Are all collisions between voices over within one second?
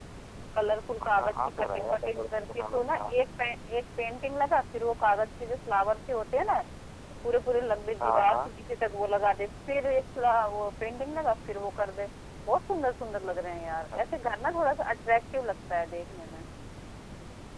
No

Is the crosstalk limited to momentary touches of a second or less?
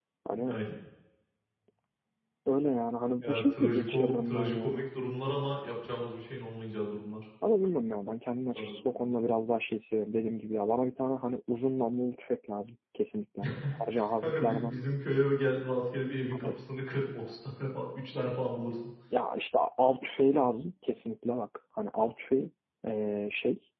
No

